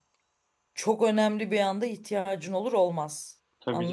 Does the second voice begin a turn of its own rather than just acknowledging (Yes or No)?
Yes